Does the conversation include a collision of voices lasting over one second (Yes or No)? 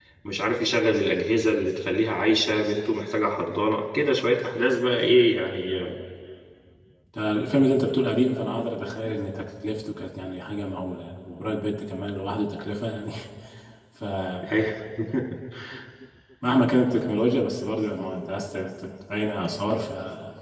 No